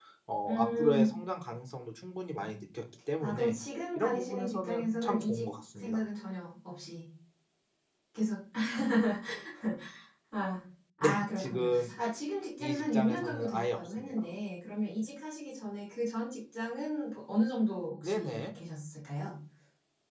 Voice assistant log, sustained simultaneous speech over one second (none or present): present